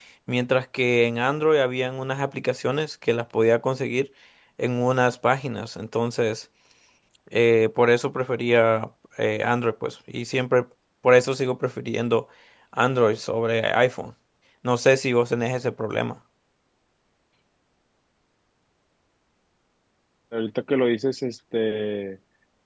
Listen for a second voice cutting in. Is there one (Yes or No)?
No